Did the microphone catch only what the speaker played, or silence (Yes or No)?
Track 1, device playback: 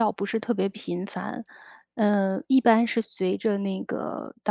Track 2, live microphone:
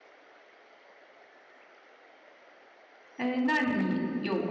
No